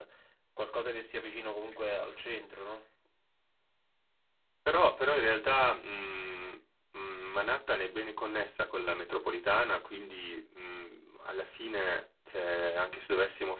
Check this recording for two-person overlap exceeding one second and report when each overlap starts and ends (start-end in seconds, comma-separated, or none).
none